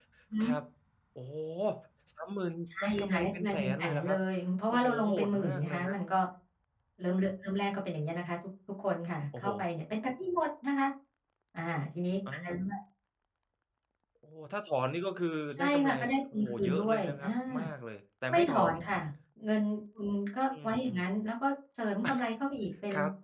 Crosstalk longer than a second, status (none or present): present